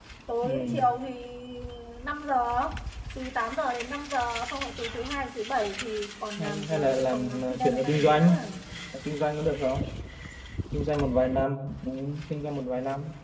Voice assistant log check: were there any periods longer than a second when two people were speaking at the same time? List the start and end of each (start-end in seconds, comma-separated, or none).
6.4-8.2